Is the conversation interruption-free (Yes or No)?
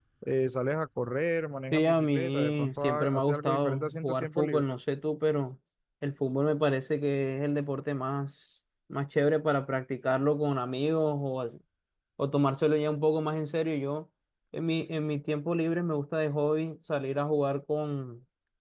No